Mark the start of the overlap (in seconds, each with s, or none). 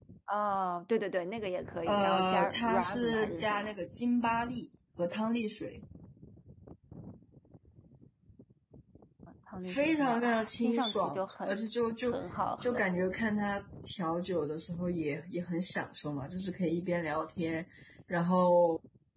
1.9 s